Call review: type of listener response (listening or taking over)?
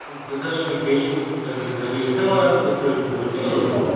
taking over